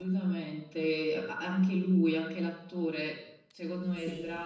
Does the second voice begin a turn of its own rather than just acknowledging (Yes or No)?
No